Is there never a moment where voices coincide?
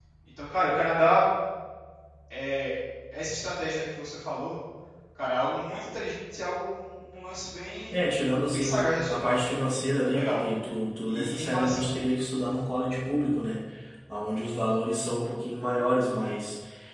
No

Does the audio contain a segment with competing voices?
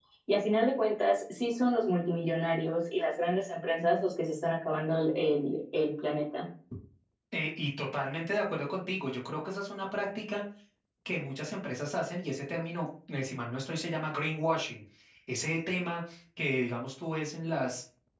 No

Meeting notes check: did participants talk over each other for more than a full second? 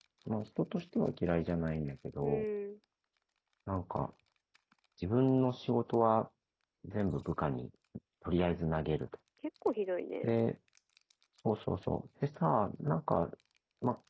No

